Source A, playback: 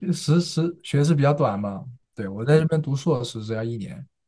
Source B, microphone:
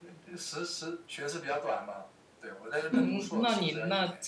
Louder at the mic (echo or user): user